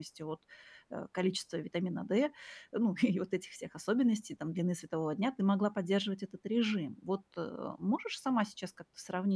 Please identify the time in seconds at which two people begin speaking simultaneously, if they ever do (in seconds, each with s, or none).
none